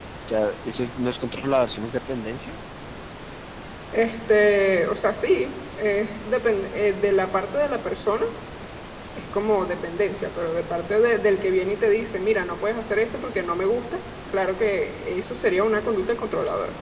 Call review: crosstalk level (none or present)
none